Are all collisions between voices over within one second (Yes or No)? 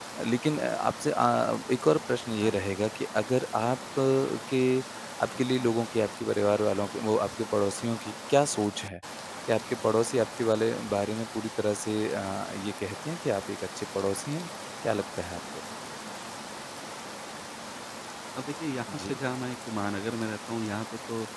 Yes